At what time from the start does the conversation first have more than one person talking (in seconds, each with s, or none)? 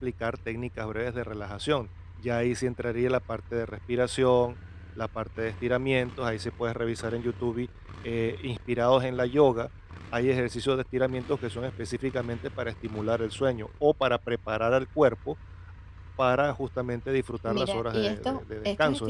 17.5 s